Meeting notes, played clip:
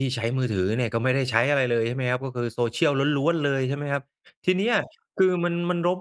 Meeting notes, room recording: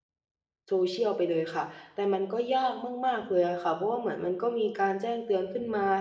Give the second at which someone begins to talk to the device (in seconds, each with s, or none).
0.7 s